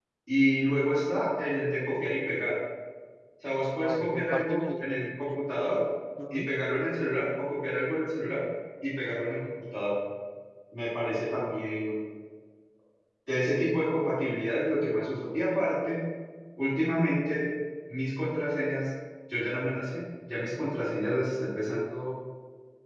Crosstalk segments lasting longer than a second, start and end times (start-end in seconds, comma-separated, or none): 3.8-5.4